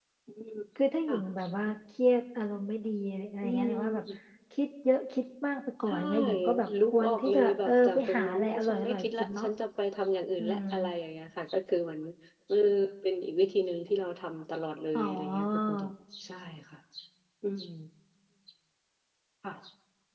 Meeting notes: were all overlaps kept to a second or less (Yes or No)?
No